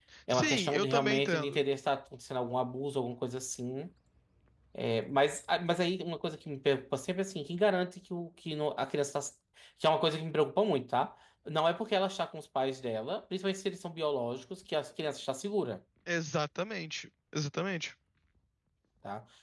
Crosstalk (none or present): present